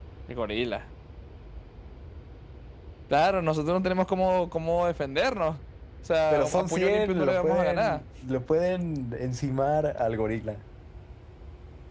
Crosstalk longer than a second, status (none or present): present